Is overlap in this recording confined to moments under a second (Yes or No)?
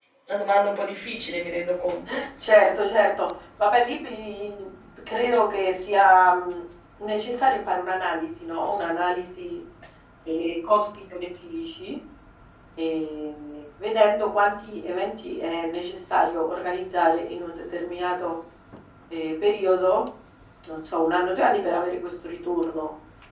Yes